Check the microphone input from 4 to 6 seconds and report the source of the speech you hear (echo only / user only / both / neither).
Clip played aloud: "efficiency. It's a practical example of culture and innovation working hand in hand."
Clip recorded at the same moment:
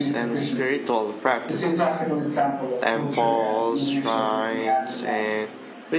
both